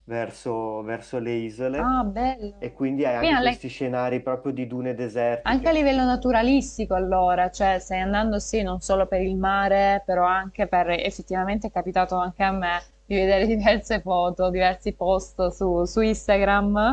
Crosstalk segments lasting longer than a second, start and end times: none

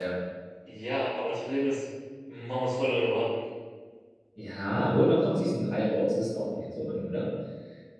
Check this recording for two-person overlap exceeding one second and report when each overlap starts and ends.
none

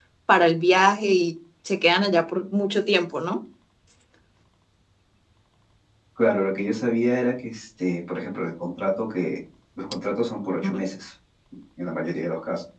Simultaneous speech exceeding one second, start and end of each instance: none

